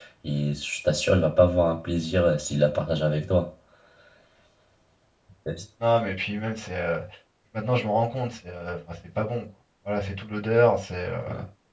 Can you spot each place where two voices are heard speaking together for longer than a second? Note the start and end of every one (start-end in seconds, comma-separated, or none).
none